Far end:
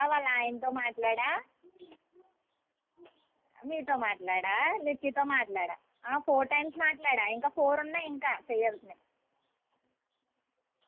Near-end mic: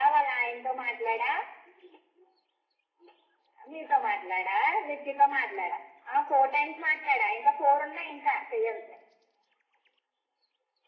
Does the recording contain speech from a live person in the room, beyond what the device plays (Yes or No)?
No